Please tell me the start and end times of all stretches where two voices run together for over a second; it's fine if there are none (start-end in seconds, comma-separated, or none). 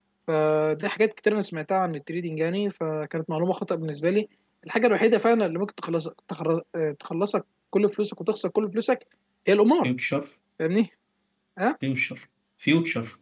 none